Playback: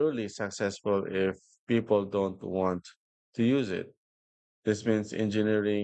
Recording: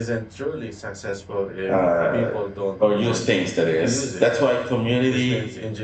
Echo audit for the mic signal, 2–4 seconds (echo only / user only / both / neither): both